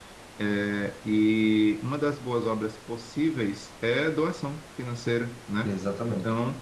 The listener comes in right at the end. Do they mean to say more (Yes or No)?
No